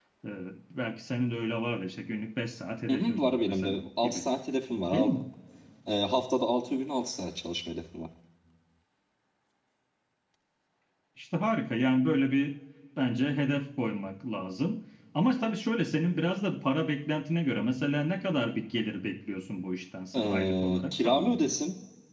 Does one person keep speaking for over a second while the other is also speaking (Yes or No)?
Yes